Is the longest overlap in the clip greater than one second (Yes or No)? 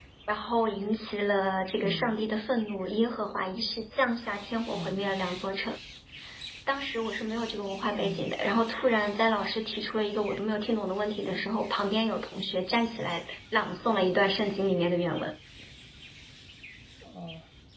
No